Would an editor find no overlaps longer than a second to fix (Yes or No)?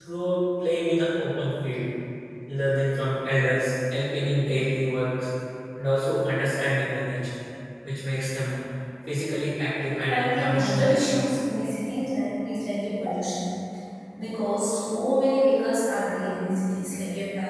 No